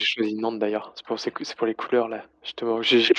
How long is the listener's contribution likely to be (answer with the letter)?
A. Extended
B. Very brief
B